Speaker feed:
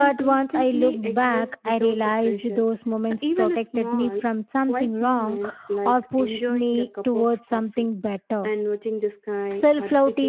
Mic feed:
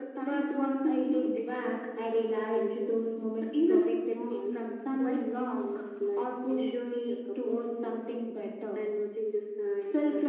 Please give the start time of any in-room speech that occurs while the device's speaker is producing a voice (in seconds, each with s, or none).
none